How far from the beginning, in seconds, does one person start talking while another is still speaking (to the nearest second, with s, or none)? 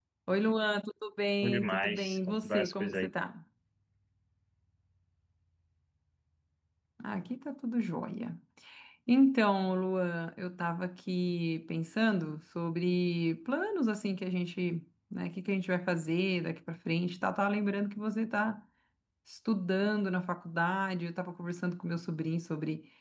1 s